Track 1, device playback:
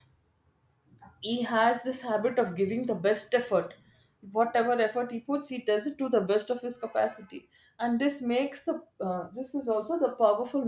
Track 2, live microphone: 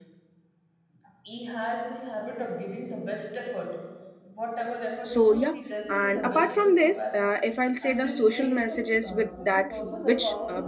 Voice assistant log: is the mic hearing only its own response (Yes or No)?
No